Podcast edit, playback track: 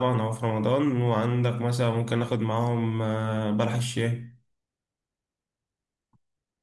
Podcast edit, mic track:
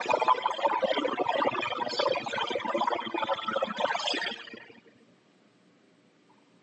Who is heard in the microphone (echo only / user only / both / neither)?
echo only